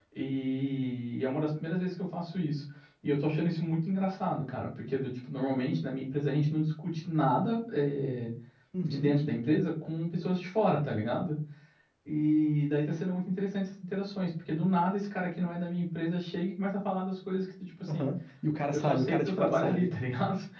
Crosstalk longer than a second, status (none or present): present